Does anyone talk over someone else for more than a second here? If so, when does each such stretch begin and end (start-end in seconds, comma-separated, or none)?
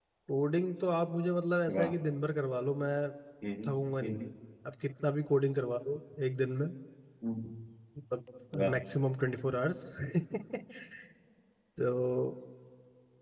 none